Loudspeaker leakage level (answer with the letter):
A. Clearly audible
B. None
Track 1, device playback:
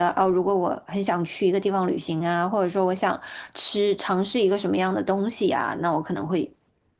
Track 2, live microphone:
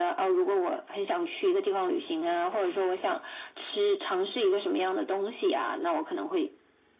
A